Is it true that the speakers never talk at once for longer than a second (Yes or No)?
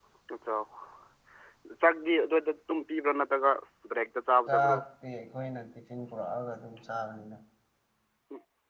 Yes